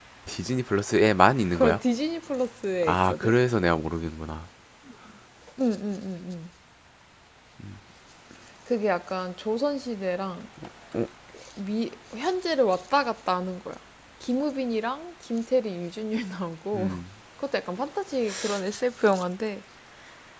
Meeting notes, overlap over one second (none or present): none